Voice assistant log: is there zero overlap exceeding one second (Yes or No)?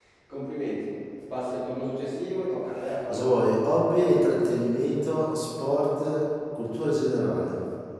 Yes